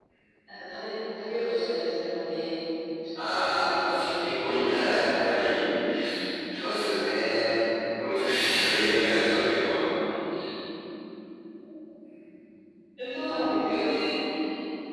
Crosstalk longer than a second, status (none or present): present